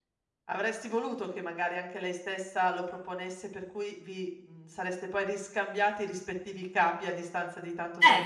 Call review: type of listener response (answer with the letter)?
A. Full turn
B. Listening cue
A